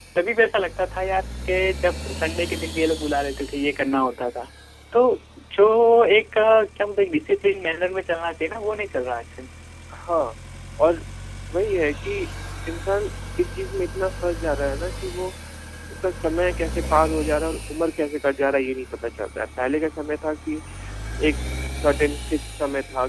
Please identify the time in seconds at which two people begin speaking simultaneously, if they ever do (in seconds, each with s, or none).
none